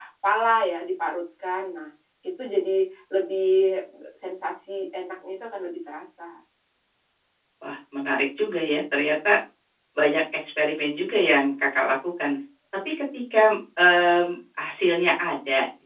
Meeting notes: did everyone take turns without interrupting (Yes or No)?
Yes